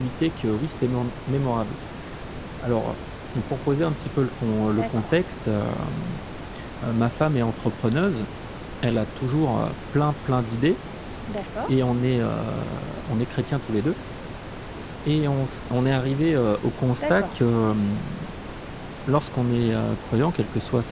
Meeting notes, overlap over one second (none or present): none